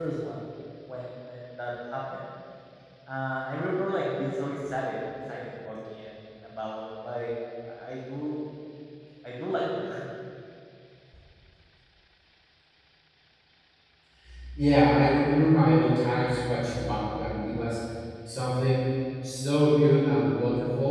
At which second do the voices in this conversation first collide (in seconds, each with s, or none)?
none